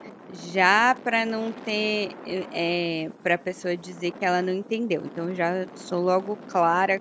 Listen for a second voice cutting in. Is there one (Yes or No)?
No